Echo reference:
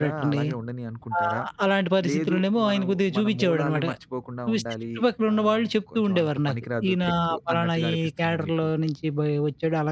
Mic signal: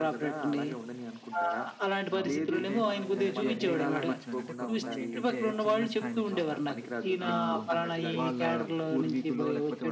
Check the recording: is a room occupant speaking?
Yes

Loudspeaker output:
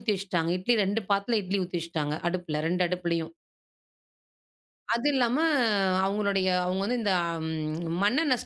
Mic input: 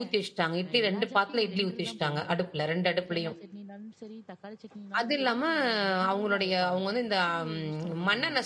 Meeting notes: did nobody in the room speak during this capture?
No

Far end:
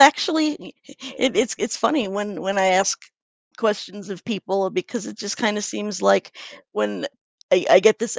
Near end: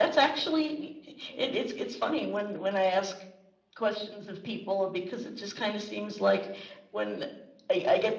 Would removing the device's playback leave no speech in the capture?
Yes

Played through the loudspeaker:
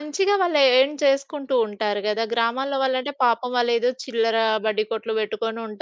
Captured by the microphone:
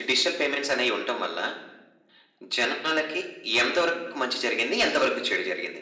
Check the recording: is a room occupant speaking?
Yes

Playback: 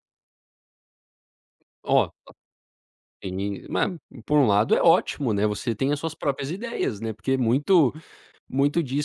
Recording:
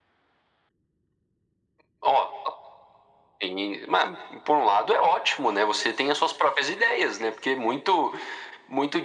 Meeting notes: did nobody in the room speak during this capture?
Yes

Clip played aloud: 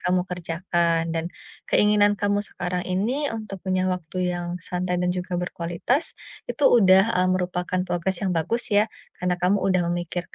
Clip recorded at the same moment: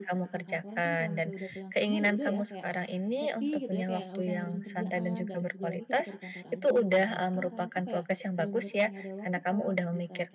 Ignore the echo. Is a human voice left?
Yes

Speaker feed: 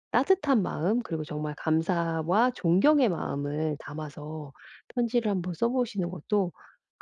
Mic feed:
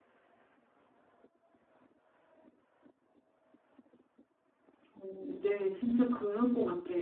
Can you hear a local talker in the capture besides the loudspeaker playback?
Yes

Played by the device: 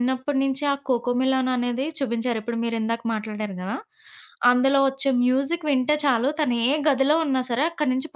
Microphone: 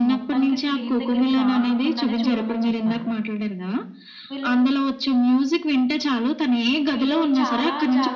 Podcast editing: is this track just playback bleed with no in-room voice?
No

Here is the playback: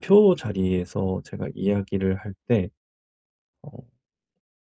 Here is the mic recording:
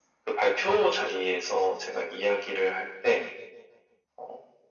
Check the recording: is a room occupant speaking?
No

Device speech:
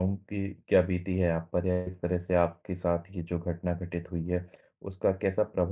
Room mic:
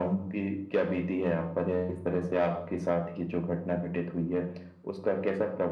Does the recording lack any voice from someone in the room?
Yes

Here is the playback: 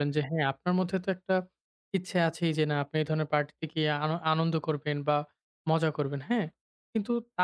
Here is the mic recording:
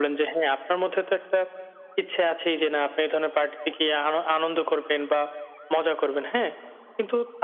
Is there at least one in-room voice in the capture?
No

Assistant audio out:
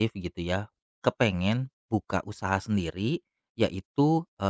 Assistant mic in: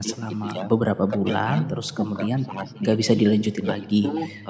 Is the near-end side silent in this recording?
No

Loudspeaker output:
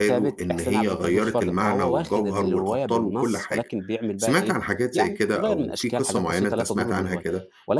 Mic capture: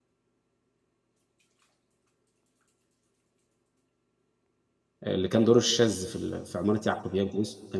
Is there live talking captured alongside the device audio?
Yes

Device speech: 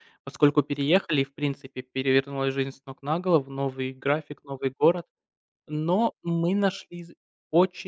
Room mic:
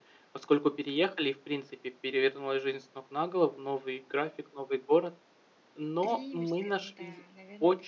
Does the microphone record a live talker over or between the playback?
Yes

